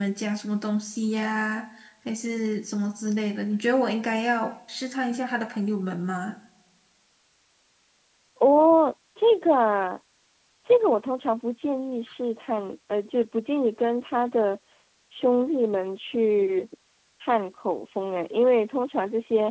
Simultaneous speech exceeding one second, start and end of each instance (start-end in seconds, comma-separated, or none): none